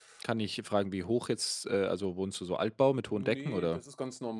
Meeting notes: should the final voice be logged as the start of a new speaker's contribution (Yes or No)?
Yes